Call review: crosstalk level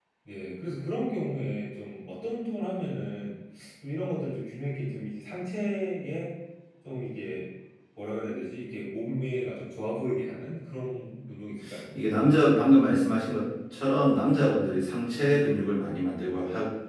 none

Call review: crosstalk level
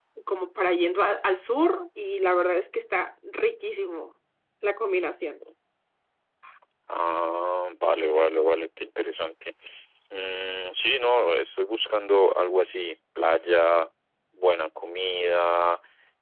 none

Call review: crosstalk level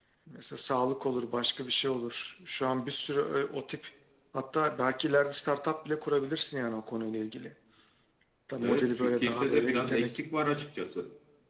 present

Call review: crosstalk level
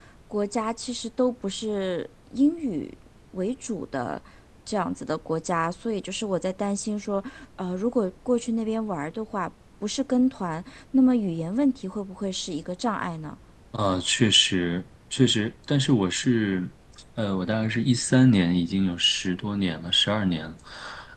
none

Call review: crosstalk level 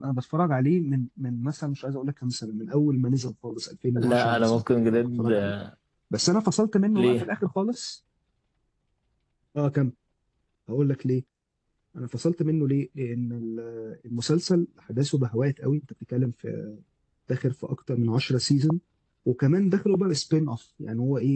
present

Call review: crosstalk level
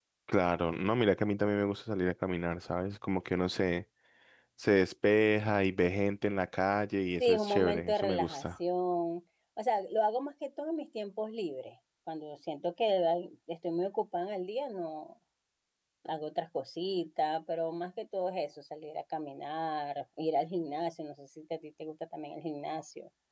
present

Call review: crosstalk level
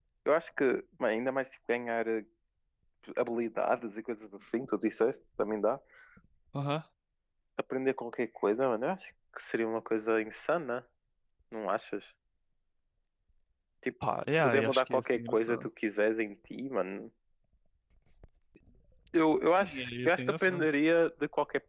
present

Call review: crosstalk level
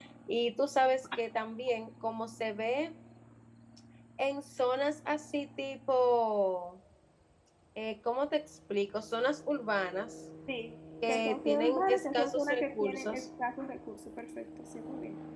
present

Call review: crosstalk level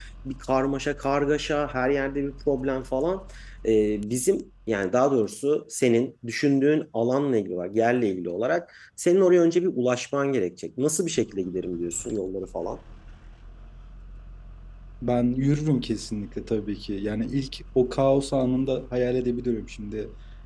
none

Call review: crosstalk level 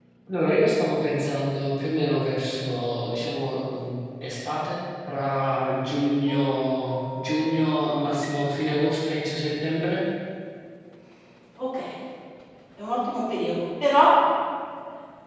none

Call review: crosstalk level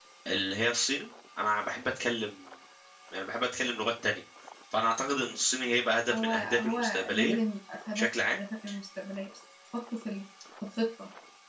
present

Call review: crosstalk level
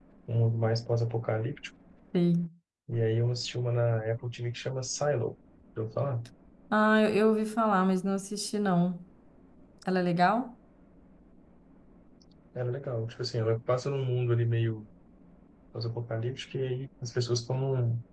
none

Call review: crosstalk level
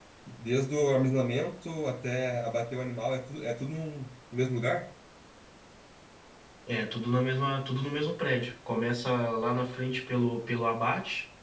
none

